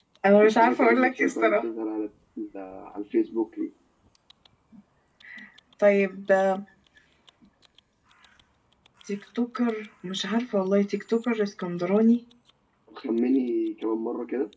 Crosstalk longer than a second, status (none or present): present